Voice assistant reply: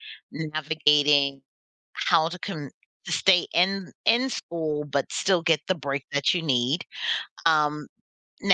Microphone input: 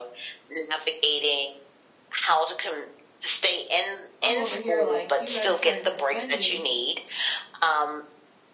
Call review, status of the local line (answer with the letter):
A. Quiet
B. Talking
B